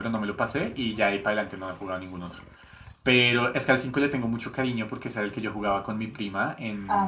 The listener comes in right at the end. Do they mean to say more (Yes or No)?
No